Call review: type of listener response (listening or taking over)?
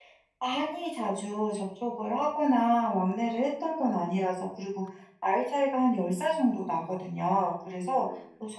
listening